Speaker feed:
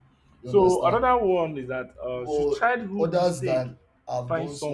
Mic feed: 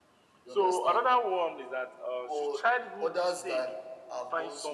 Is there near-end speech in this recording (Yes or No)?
No